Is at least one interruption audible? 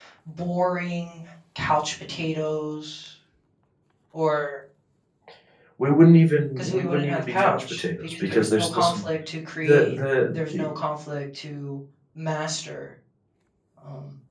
Yes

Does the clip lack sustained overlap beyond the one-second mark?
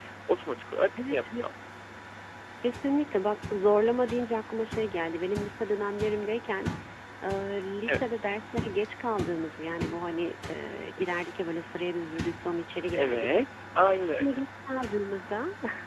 Yes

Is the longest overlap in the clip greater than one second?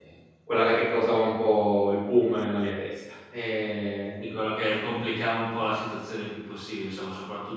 No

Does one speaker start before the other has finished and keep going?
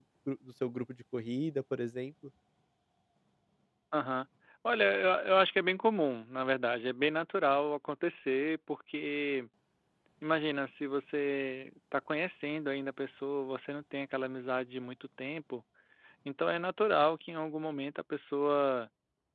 No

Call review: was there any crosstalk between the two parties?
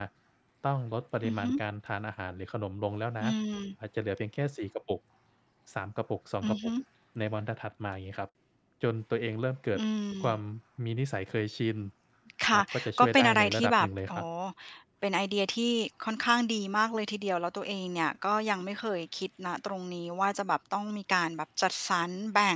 Yes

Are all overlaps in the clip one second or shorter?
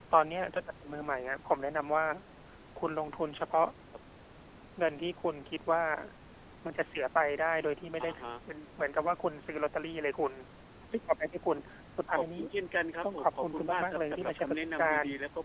No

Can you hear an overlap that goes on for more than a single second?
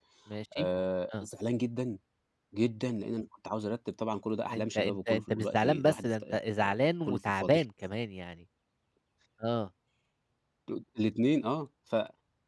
Yes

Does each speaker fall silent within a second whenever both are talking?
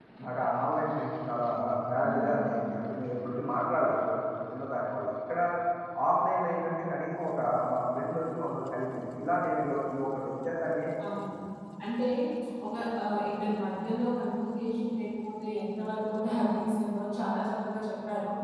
Yes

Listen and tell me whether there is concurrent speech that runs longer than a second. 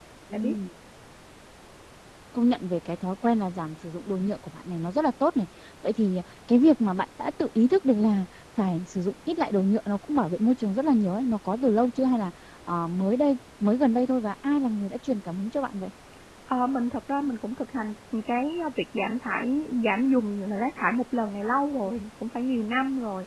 No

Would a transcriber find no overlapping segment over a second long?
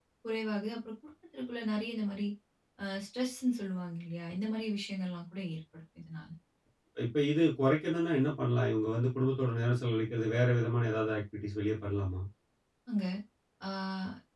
Yes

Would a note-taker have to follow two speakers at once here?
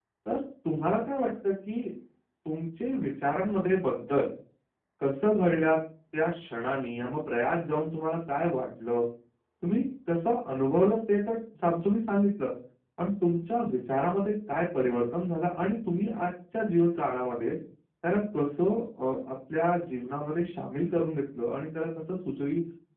No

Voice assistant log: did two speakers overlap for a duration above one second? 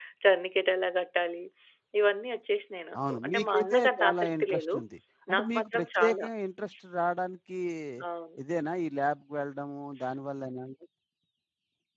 Yes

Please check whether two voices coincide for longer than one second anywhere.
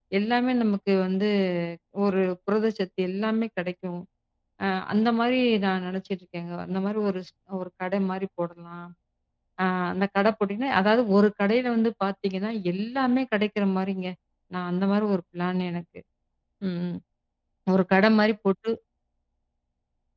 No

